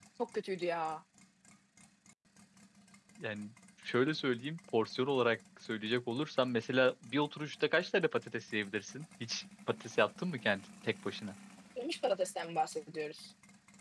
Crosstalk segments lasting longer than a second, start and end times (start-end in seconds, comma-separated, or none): none